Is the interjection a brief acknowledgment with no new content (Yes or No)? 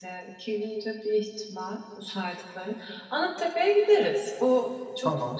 Yes